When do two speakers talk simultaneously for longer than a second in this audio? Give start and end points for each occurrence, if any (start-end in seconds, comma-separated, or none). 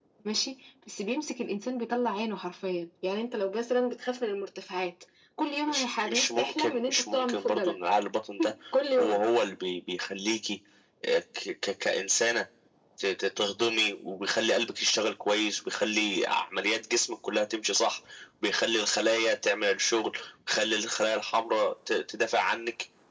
5.7-7.7